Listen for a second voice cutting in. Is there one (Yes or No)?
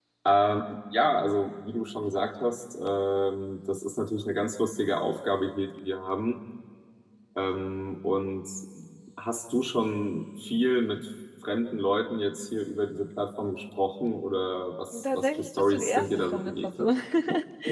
Yes